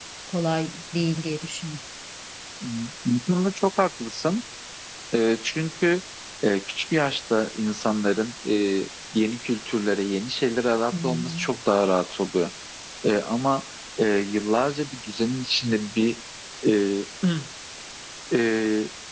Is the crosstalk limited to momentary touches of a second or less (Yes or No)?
Yes